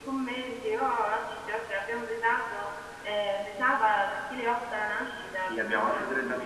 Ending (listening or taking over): taking over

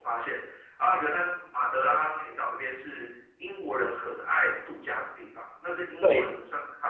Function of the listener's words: listening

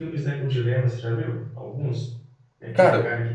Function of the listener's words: listening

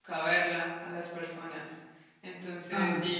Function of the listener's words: listening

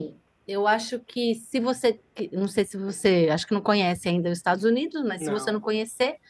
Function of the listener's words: listening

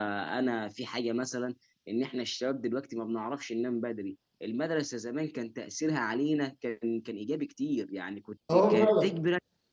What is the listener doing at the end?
listening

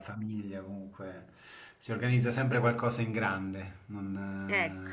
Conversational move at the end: listening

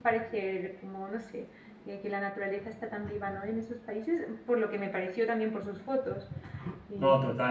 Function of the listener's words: taking over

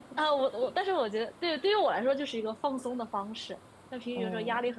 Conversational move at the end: listening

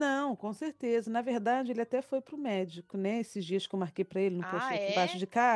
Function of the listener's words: listening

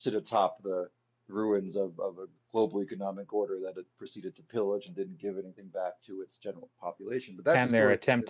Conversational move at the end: taking over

